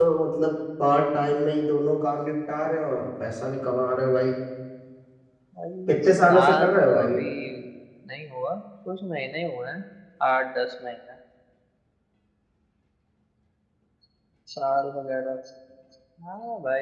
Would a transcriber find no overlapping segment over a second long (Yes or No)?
No